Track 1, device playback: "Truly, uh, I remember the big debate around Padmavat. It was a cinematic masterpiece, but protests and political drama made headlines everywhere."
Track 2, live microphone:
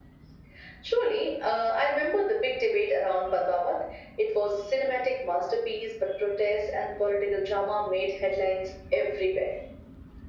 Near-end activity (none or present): none